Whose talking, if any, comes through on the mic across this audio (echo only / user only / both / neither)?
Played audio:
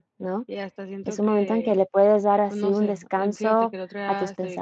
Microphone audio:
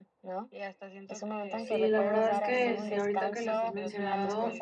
both